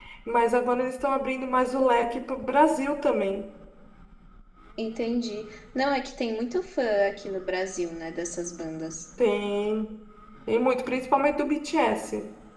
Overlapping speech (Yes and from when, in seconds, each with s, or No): No